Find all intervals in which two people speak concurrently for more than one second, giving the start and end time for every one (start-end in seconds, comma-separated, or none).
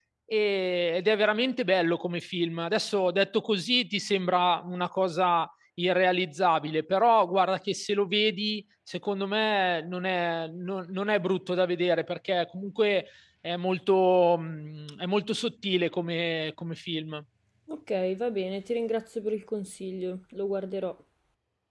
none